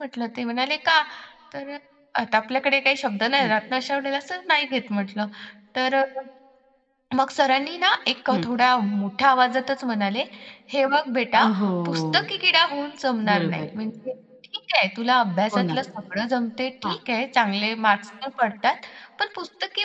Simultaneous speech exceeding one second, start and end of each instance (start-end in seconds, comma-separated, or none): none